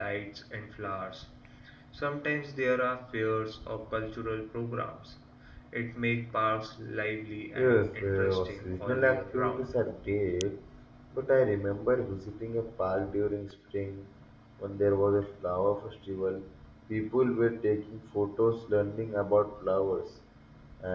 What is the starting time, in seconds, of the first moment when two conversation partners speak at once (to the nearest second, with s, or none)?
8 s